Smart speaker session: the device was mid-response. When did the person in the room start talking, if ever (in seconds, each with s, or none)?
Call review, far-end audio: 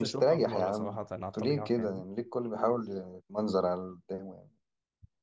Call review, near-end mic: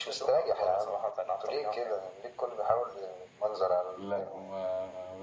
4.0 s